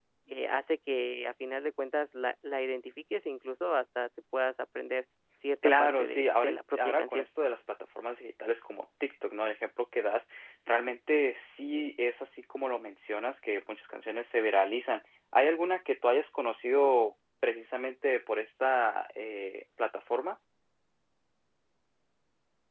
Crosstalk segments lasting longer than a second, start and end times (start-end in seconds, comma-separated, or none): 5.6-7.3